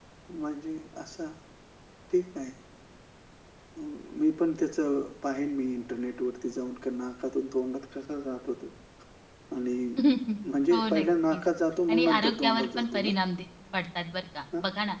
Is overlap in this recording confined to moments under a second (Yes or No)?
No